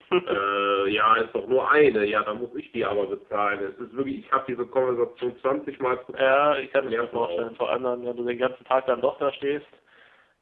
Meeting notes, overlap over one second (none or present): present